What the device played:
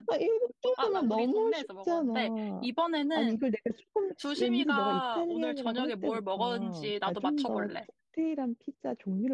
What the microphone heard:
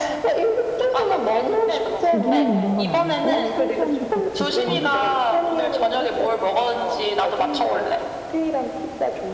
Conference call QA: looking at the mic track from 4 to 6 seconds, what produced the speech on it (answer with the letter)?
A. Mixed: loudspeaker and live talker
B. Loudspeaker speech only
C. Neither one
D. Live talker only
A